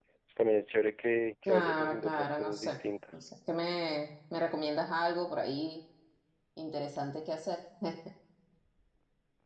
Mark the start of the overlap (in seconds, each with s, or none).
1.5 s